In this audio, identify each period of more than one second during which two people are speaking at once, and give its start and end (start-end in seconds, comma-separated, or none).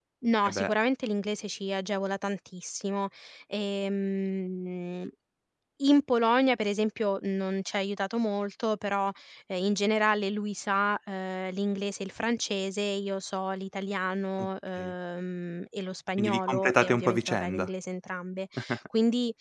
16.2-17.7